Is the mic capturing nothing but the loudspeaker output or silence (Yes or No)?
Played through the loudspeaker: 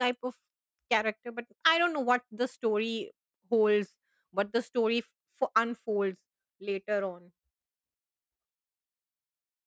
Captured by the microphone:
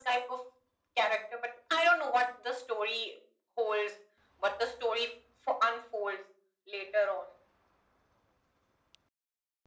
Yes